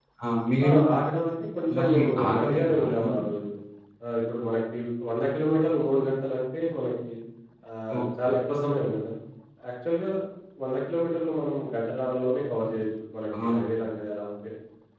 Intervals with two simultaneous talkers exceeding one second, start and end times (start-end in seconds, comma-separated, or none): 1.8-3.2